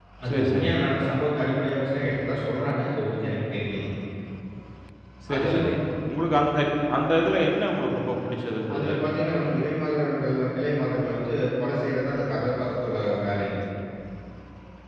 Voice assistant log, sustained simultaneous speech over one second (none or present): none